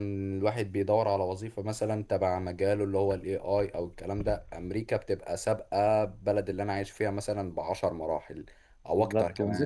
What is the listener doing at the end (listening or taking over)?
taking over